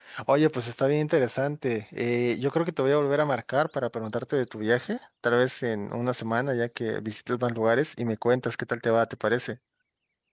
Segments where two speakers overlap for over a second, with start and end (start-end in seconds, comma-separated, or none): none